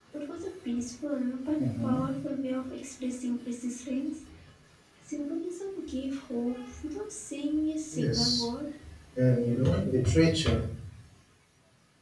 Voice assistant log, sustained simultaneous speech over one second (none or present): none